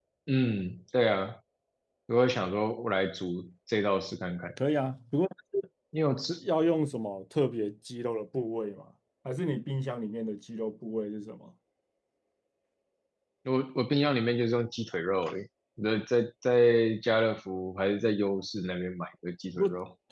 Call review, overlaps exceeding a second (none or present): none